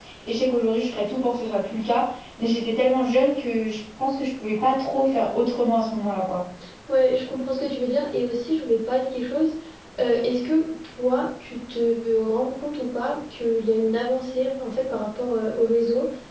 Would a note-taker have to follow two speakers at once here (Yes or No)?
No